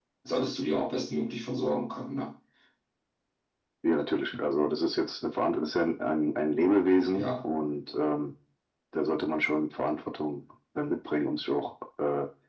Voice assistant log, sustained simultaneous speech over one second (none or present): none